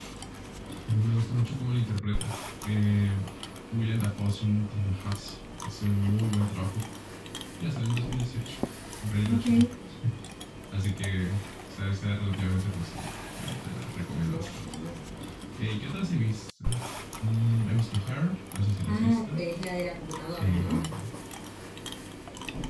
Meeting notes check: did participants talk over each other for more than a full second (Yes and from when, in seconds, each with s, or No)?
No